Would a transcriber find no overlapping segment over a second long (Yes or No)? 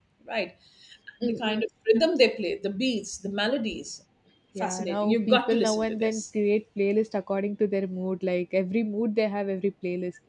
No